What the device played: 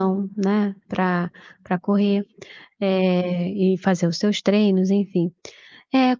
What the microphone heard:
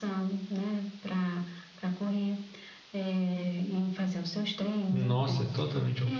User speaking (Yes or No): Yes